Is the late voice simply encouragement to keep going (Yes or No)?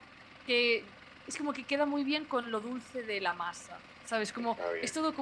Yes